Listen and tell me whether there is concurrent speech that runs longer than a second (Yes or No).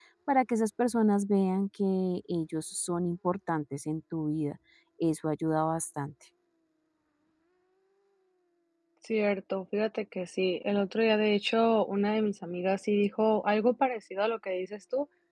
No